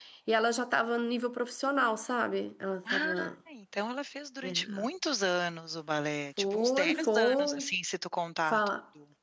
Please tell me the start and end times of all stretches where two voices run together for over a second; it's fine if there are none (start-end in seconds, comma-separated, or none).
6.4-7.7